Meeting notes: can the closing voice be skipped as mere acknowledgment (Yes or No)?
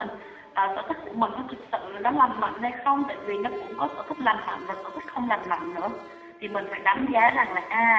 Yes